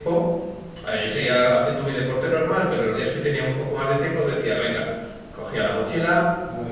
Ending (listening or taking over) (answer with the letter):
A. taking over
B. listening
B